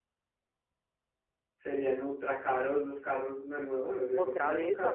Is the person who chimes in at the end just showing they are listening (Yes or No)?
No